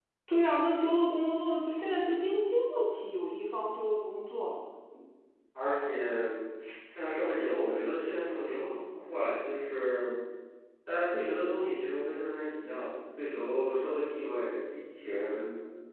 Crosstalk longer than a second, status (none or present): none